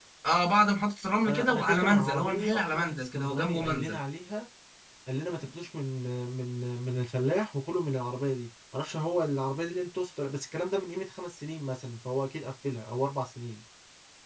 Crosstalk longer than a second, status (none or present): present